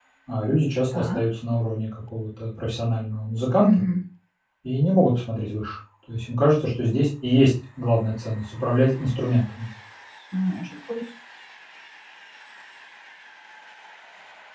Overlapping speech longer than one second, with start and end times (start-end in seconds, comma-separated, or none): none